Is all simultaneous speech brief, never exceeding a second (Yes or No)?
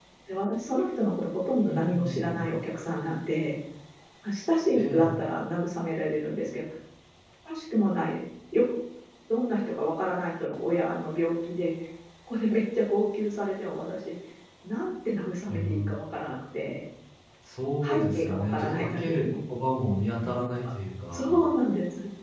No